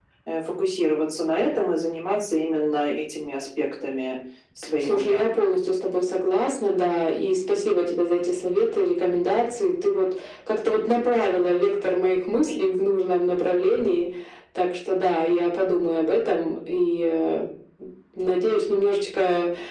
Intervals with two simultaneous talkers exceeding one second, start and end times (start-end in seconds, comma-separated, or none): none